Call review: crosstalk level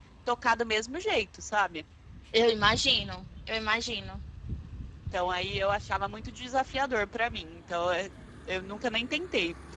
none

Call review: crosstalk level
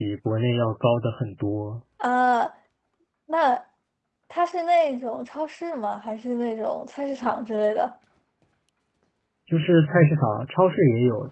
none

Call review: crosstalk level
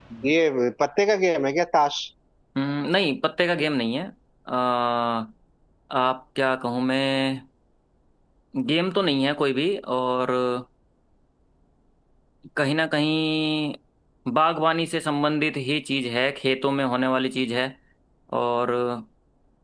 none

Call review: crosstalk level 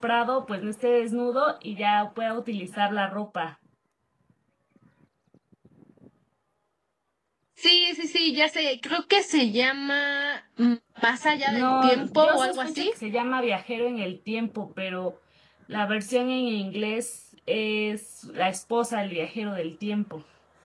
present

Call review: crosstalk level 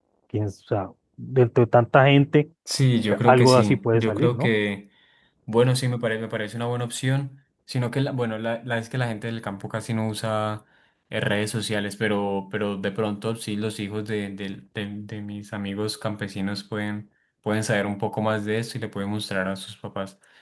present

